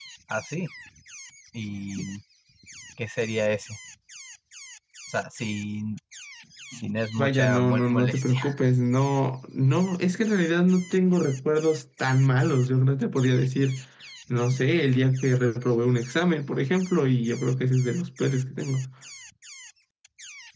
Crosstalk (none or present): present